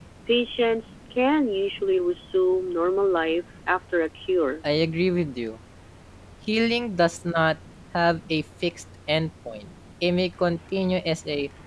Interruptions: none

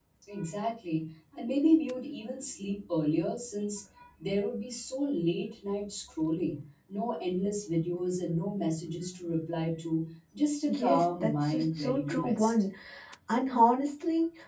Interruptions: present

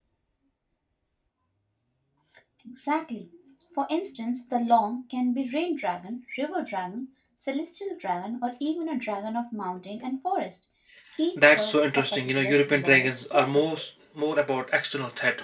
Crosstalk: present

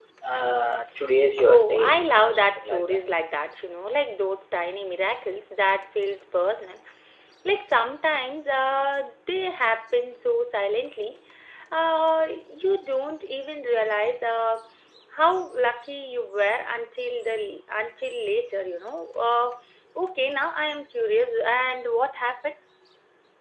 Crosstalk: present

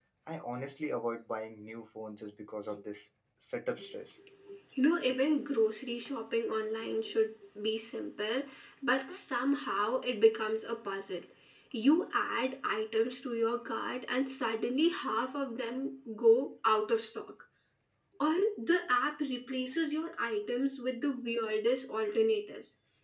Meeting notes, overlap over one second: none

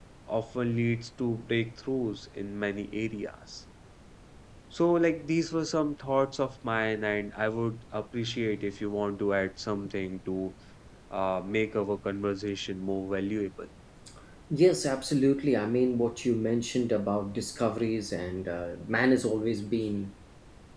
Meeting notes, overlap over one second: none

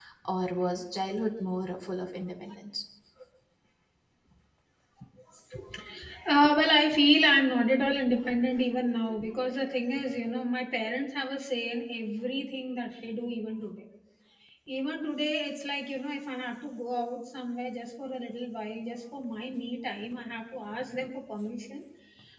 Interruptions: none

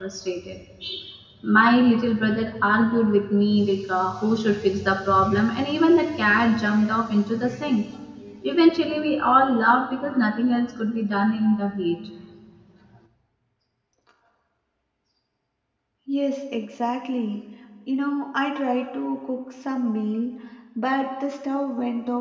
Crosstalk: none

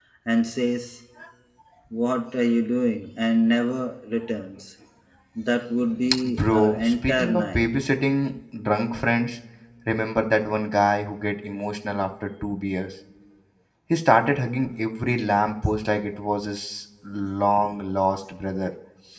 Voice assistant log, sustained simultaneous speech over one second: present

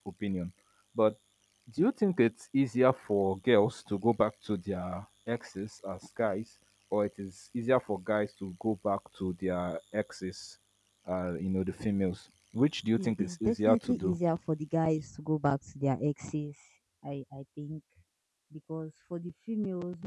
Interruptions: present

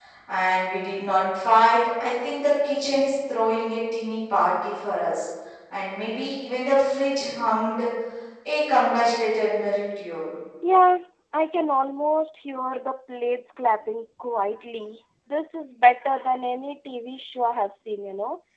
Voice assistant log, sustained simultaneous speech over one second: none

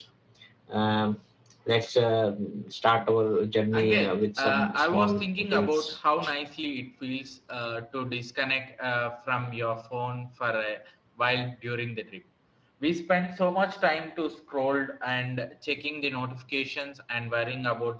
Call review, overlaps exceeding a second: present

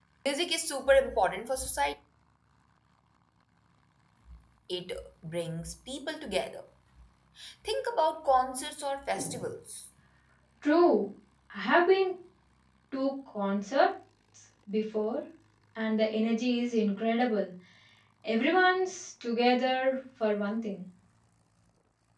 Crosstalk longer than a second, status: none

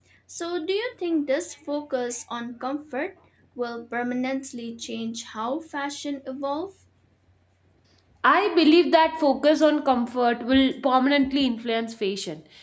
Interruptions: none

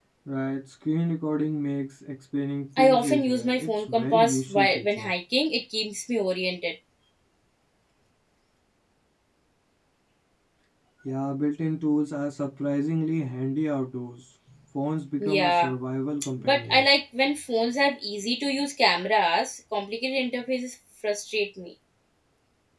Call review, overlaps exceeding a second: present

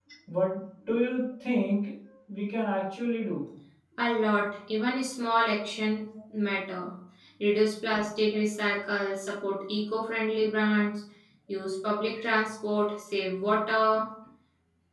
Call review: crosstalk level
none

